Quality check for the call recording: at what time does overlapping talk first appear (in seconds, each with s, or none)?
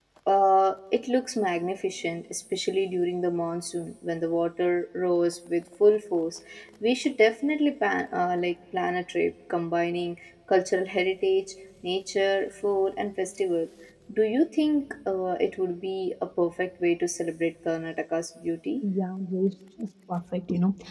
none